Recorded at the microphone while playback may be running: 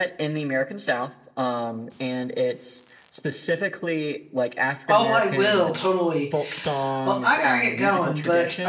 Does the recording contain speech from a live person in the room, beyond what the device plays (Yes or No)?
Yes